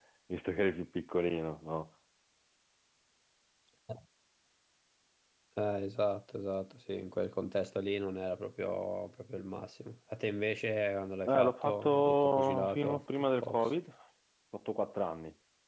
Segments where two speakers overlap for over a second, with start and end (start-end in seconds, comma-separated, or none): 11.3-13.7